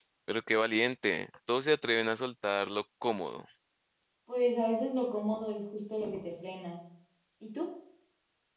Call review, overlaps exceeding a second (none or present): none